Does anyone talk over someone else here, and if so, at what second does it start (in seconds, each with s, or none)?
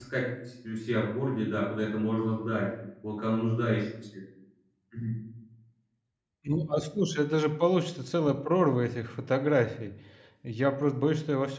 none